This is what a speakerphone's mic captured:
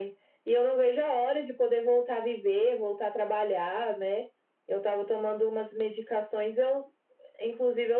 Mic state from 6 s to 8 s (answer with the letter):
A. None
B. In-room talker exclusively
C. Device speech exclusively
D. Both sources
C